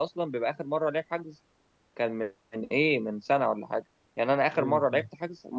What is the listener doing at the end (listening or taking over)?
listening